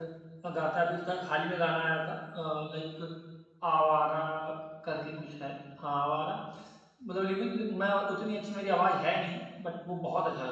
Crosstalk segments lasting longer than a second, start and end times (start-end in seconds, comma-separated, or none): none